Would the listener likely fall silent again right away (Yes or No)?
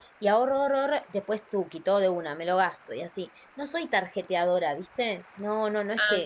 Yes